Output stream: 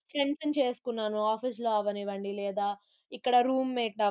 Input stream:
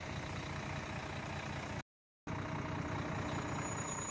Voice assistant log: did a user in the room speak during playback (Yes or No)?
No